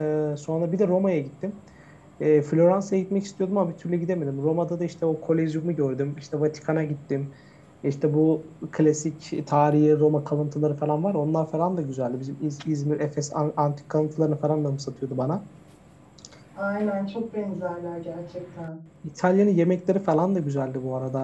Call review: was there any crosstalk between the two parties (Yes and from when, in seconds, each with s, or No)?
No